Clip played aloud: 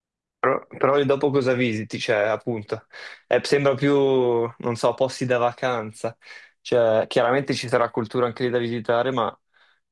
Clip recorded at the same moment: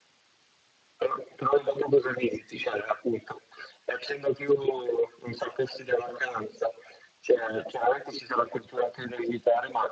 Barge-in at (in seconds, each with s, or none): none